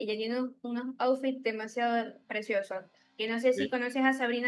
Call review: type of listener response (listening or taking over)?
listening